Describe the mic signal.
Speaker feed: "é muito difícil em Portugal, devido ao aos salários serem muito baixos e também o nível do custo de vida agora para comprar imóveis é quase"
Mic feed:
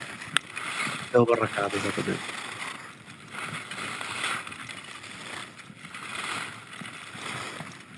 user only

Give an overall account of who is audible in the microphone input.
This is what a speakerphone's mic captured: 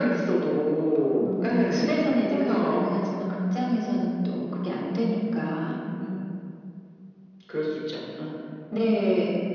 echo only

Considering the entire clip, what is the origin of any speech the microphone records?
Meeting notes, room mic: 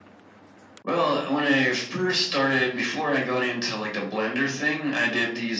echo only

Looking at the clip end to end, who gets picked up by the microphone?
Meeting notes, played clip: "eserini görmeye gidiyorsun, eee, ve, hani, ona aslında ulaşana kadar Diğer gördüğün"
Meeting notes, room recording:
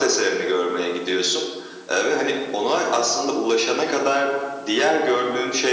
echo only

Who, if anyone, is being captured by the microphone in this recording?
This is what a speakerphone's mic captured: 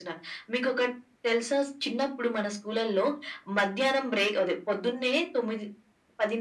echo only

